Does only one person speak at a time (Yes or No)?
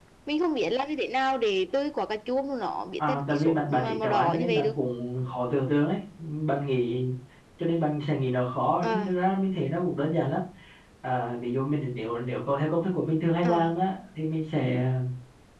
No